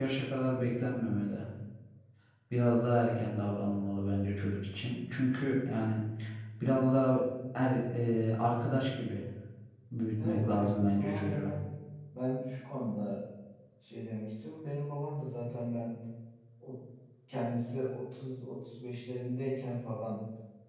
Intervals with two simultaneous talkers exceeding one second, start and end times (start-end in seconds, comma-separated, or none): 10.2-11.5